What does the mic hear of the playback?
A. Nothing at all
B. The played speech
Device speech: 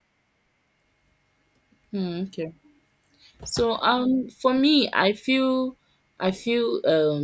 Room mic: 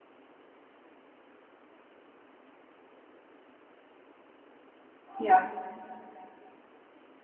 A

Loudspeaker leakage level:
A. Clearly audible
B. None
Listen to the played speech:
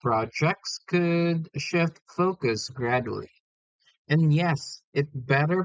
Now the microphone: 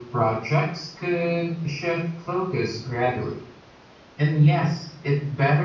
A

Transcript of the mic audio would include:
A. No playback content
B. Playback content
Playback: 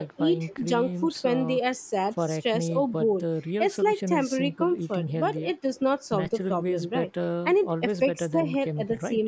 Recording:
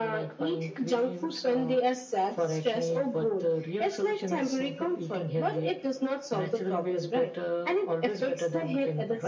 B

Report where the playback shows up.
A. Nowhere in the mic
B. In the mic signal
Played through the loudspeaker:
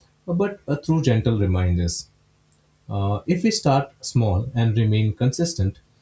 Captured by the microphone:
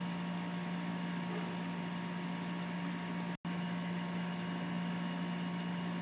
A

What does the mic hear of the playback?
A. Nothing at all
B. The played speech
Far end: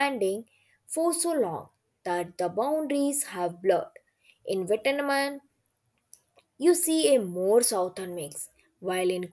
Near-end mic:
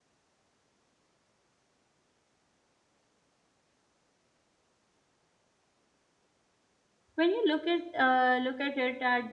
A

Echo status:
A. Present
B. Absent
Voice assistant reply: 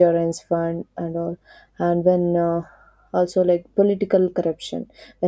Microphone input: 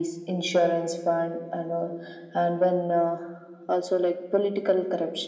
A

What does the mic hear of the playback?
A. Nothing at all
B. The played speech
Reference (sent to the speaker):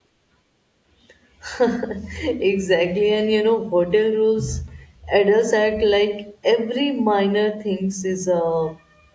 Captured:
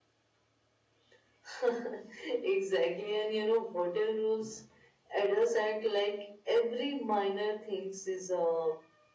B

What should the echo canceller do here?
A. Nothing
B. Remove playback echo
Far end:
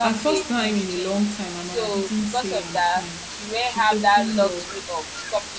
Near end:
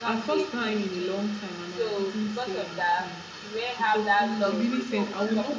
B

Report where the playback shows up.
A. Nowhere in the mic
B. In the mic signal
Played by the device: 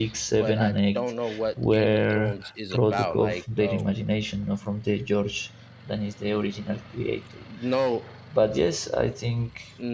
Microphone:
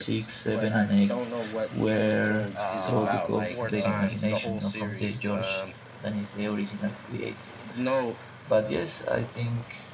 B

